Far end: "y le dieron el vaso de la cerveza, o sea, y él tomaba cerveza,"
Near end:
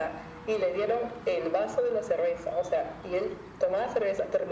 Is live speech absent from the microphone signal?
Yes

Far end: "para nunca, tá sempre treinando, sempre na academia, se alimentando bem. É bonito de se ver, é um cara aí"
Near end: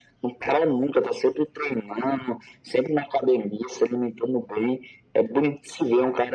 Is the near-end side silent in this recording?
Yes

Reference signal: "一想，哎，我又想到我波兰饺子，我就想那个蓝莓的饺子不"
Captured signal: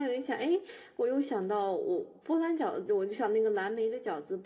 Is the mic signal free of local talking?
Yes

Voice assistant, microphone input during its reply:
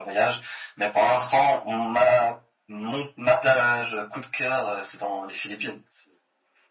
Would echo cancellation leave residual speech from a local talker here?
No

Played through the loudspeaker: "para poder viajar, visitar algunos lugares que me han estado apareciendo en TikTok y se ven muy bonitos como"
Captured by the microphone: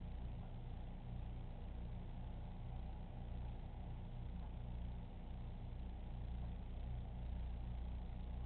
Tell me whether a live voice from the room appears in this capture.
No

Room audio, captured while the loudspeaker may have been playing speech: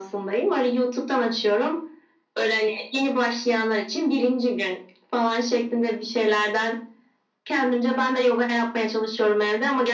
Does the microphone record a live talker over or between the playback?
No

